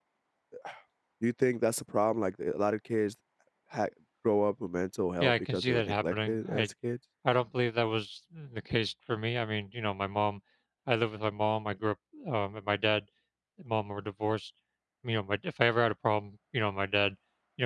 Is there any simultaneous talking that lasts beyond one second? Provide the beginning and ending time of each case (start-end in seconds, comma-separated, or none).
5.2-6.7